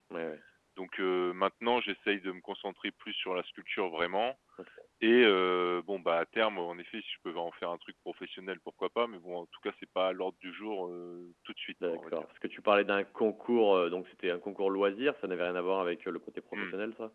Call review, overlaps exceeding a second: none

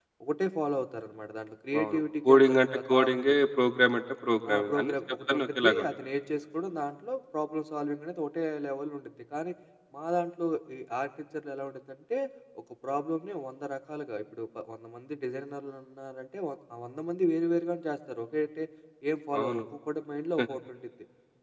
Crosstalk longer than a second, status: present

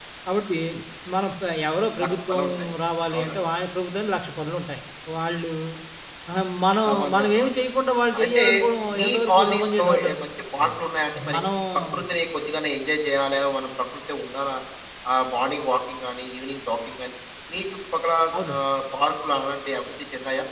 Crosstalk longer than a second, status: present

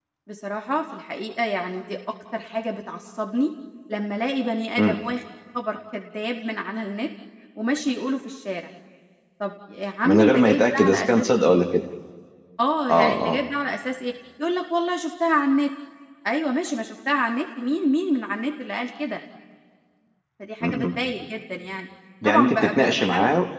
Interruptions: present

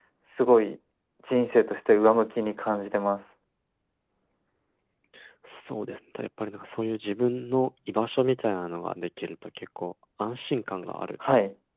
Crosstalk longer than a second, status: none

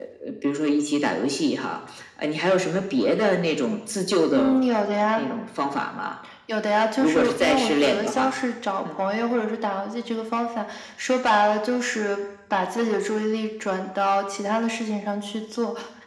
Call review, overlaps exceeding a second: present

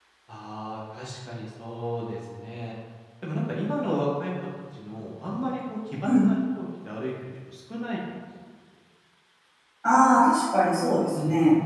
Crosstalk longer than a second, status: none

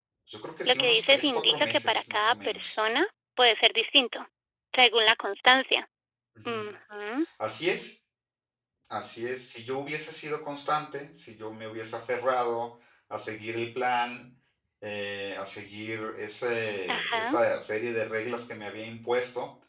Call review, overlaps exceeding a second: present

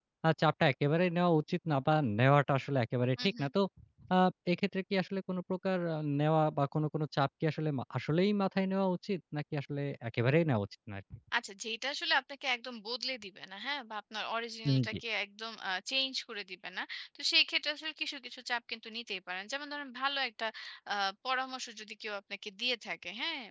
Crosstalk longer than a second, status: none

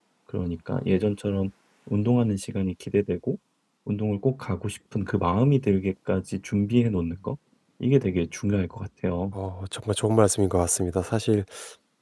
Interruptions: none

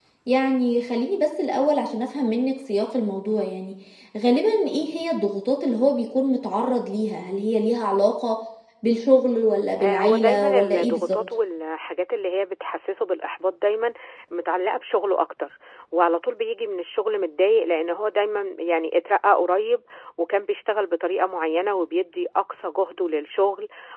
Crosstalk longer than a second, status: present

